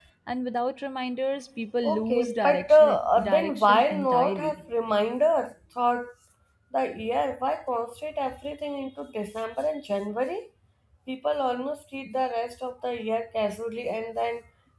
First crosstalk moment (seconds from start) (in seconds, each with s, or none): 1.8 s